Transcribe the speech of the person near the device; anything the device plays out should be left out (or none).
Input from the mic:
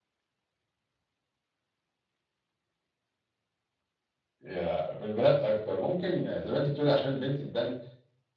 ياه! في البنات أكتر، ممكن زي ما أنتِ بتقولي عشان البنت تبان